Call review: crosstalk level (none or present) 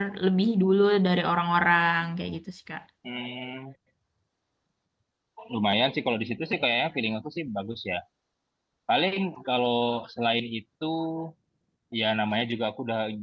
none